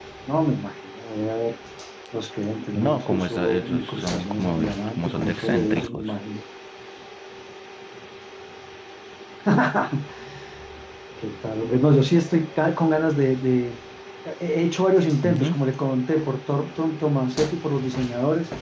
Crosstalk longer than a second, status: present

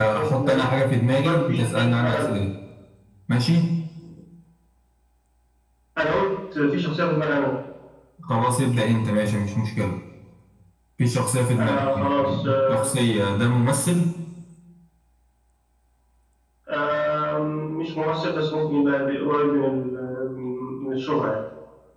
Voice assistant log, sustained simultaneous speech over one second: present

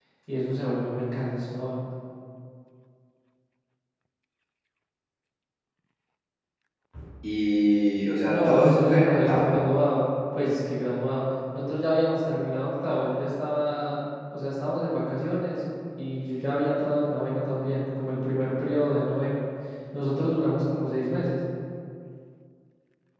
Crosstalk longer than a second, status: present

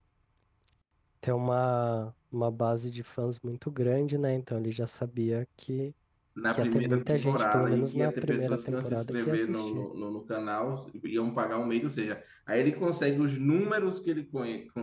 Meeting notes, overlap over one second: present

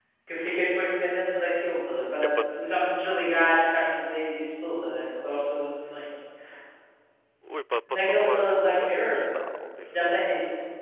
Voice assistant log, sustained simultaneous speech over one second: present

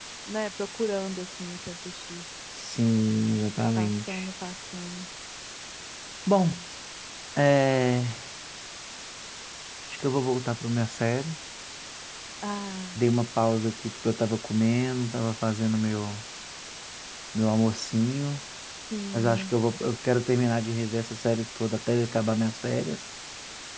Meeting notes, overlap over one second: none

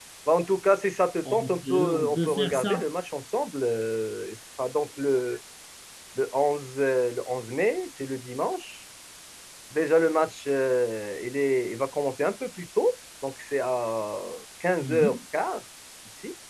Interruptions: present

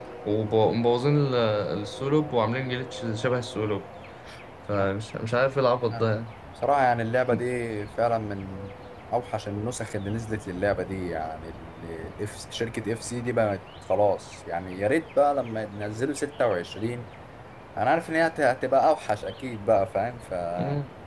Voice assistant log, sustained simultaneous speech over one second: none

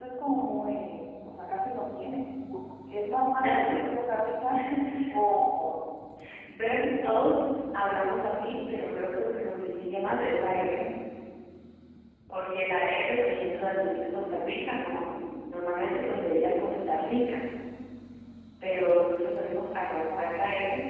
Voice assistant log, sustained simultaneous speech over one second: none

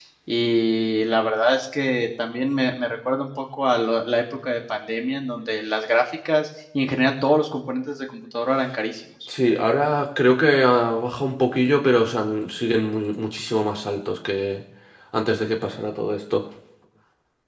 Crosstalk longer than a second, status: none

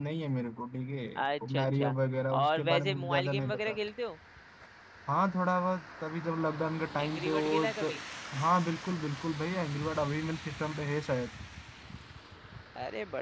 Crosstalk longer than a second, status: present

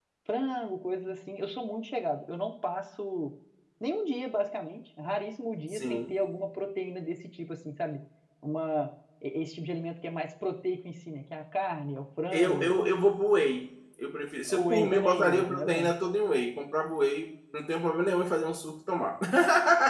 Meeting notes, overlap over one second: present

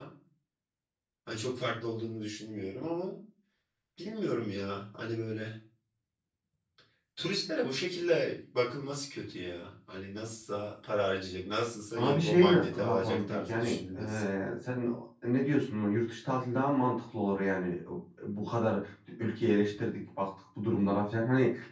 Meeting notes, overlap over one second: present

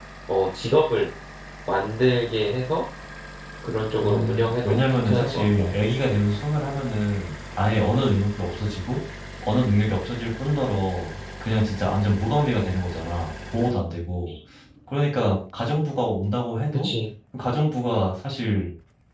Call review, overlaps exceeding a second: present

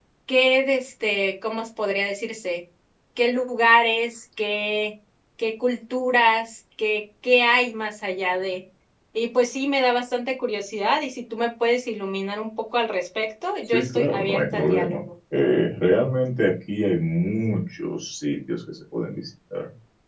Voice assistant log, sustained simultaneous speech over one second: present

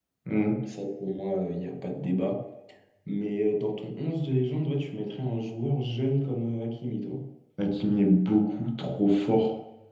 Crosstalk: none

